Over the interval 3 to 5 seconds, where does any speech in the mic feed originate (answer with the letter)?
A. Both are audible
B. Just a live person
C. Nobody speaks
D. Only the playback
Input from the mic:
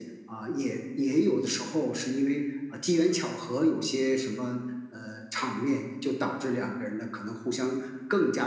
D